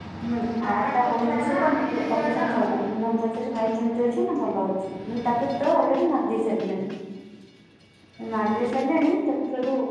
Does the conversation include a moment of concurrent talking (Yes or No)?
Yes